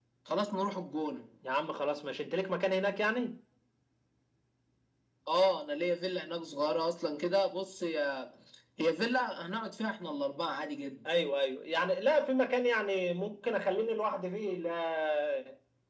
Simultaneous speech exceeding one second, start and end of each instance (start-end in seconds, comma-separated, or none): none